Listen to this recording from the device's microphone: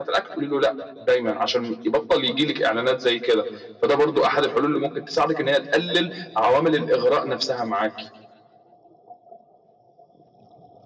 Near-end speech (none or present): none